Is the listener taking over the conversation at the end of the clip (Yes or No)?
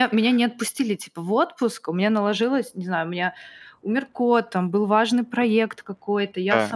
No